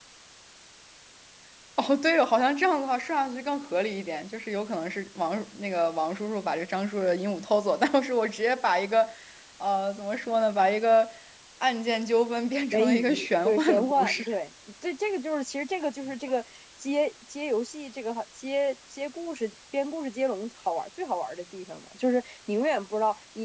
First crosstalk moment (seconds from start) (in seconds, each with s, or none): 12.7 s